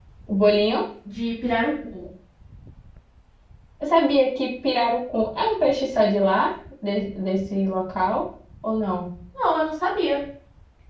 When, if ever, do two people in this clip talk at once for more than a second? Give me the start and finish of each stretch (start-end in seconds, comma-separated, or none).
none